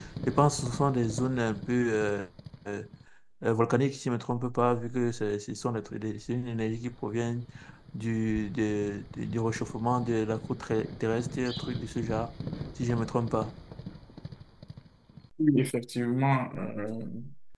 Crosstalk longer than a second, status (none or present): none